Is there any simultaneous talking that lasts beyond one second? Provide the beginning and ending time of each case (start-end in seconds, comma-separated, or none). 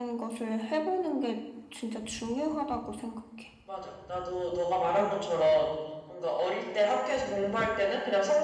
none